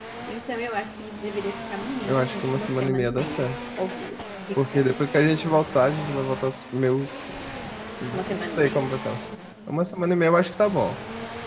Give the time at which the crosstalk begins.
2.0 s

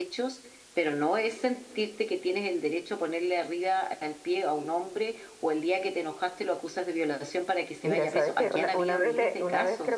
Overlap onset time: 7.8 s

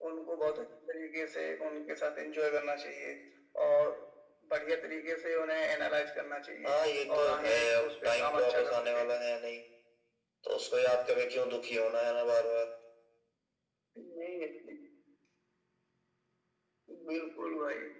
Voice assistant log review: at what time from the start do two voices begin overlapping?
6.6 s

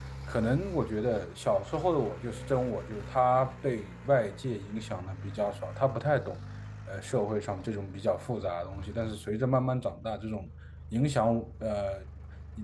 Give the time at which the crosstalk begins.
none

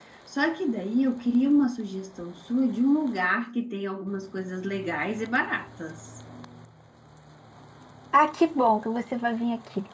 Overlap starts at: none

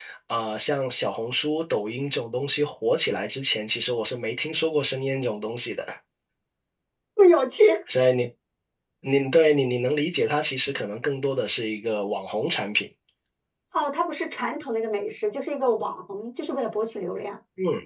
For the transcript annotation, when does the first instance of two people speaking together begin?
none

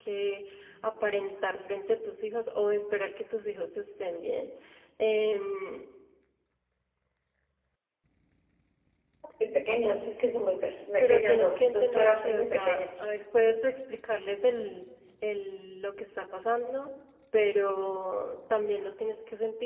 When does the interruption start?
11.0 s

